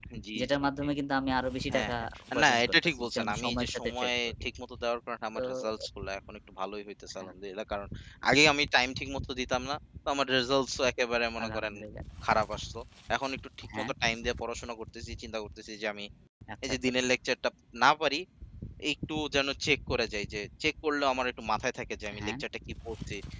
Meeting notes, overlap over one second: present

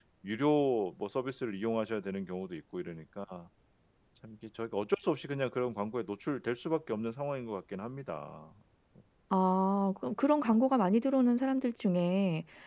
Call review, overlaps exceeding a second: none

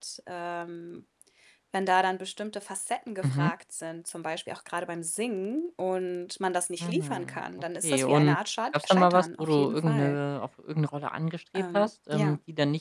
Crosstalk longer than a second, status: present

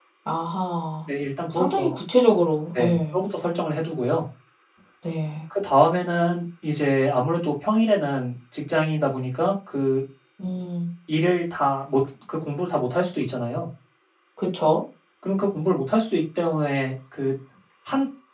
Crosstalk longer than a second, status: none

